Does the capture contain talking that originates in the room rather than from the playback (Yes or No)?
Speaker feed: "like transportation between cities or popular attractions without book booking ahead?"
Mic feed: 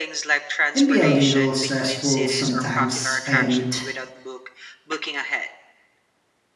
Yes